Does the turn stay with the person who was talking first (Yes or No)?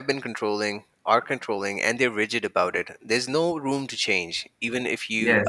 Yes